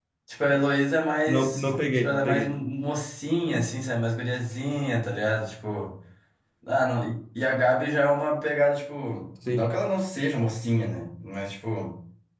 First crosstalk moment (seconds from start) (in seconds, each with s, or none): 1.3 s